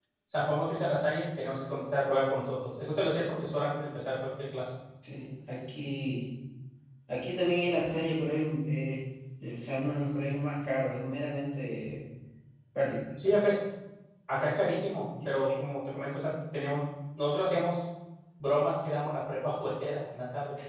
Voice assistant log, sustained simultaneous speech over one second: none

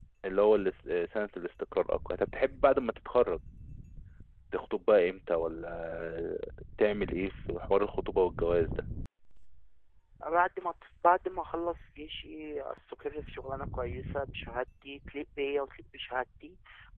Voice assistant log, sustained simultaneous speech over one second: none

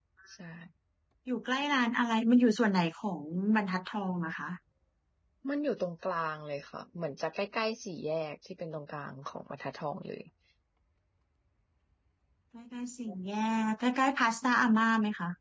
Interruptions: none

